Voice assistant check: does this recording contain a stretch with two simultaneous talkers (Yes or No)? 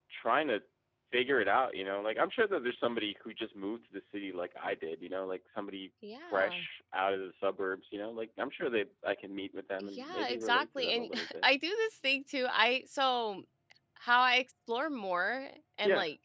Yes